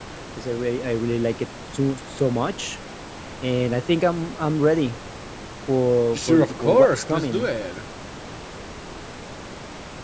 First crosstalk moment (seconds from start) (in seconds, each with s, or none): 6.1 s